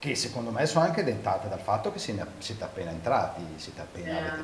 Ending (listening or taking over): listening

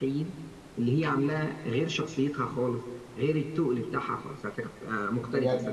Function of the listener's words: taking over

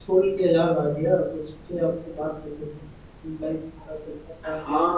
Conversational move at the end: taking over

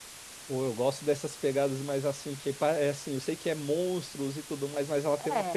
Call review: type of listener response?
listening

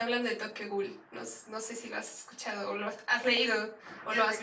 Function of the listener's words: taking over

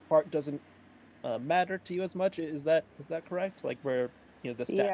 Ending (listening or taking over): taking over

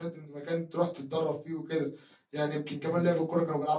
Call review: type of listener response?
listening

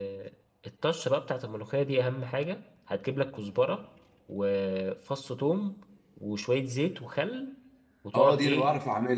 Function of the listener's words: taking over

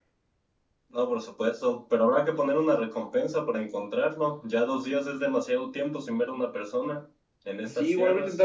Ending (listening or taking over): taking over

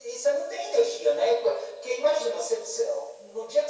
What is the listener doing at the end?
listening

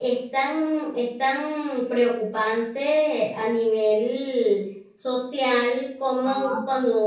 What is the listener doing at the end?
listening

